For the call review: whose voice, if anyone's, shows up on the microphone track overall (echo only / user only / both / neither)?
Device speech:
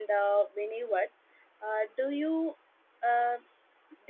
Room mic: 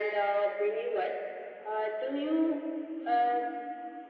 echo only